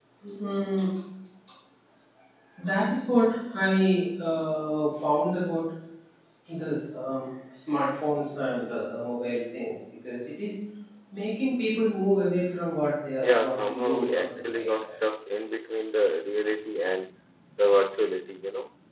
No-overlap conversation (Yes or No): No